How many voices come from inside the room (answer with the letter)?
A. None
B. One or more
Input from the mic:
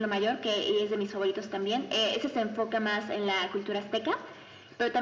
A